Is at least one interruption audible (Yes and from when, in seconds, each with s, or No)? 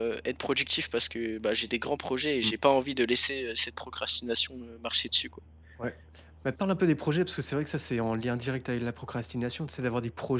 No